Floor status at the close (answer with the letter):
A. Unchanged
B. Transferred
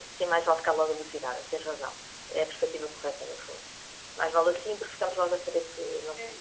B